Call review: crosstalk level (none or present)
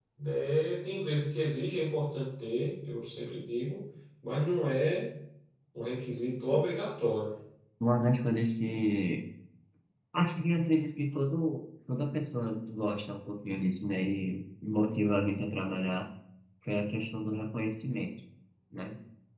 none